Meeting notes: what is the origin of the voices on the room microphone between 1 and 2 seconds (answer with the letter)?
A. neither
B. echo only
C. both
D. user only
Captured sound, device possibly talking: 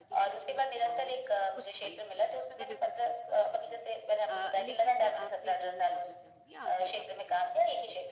C